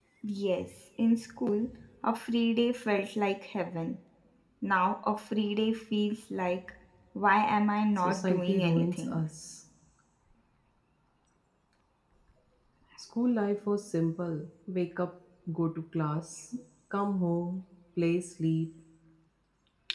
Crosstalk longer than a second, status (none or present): present